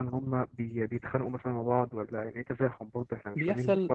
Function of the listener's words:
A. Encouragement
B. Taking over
B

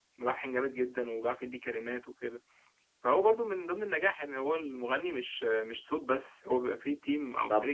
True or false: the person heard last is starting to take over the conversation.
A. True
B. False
A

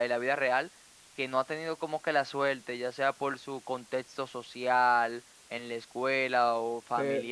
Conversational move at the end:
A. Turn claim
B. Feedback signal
A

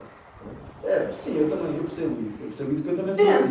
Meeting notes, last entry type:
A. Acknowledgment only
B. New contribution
A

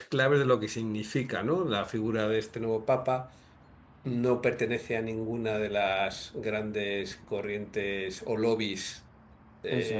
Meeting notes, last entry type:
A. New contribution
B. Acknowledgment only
B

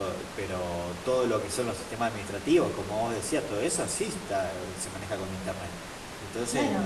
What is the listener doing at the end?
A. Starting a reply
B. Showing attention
A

